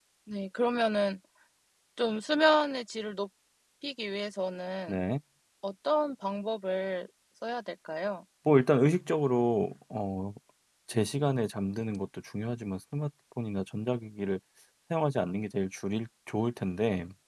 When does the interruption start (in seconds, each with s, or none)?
none